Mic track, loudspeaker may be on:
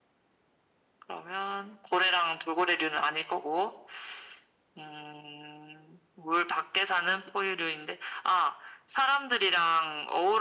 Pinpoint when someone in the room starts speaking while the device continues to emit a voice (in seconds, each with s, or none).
none